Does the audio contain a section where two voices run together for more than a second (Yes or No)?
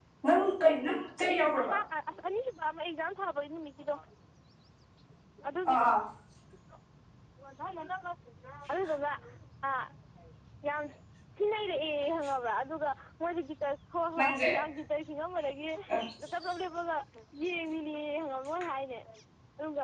No